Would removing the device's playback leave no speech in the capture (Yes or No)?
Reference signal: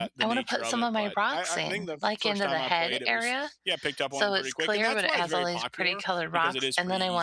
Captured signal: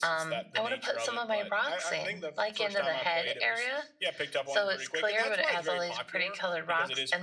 Yes